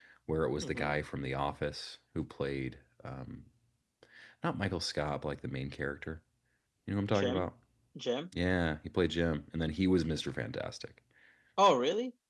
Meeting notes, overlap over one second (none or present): none